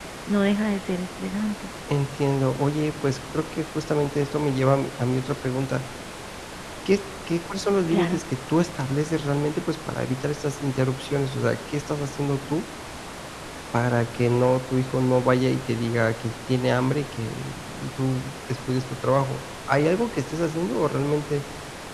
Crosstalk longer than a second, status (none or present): none